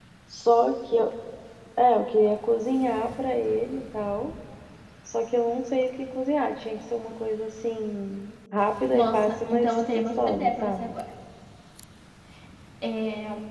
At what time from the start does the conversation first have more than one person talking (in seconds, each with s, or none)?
8.9 s